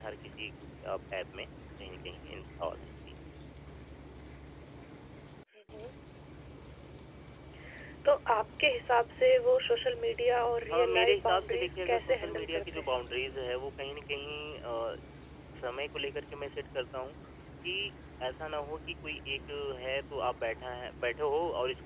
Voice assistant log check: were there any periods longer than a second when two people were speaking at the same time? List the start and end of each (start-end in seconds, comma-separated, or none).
10.7-13.0